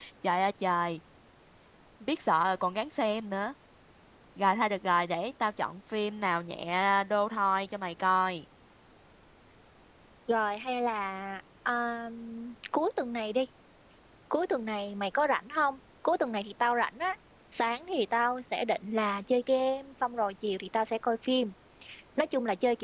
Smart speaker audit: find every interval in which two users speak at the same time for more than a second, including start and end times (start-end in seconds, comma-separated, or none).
none